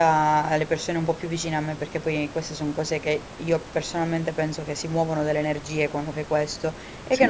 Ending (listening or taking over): listening